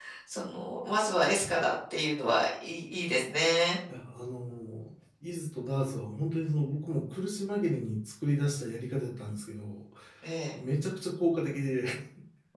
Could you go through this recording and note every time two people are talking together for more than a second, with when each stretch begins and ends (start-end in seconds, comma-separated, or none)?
none